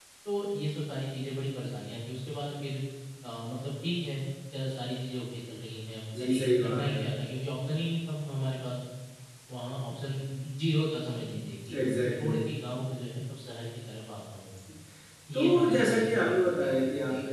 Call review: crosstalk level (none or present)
present